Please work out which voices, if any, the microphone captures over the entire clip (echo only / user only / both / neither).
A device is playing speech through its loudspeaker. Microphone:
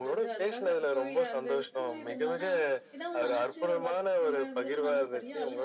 both